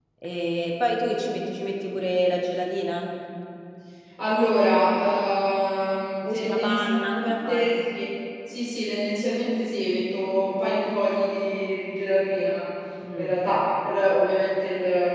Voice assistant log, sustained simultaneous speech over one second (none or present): present